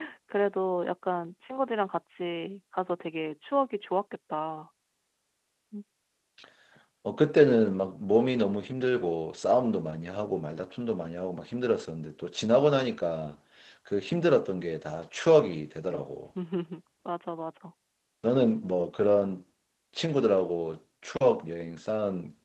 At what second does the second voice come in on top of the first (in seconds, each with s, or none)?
none